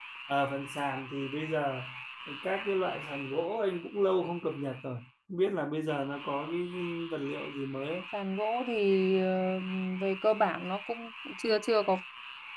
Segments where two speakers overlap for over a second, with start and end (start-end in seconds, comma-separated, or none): none